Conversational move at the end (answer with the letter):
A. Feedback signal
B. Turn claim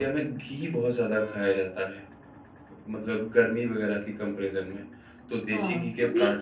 B